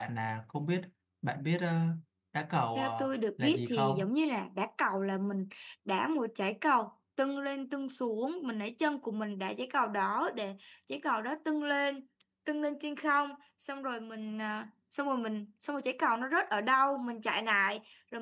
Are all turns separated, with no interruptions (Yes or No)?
No